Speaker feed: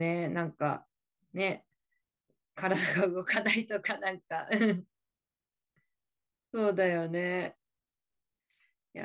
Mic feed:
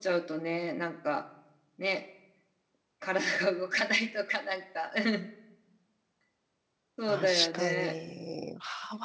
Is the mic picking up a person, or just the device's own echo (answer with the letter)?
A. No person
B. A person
B